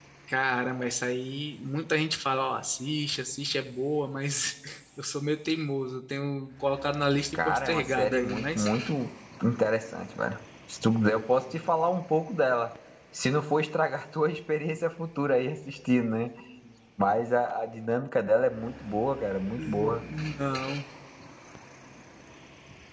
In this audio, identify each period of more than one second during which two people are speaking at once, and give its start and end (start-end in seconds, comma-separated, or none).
7.3-8.7